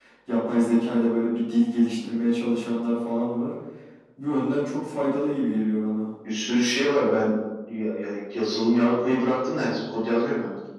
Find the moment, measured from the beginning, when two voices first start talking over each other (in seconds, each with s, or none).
none